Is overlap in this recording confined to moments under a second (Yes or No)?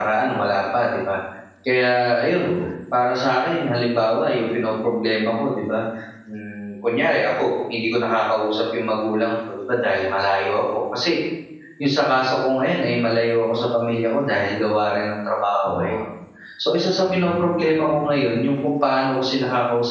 No